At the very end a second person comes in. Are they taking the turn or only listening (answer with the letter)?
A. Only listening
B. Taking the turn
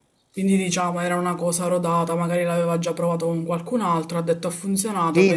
B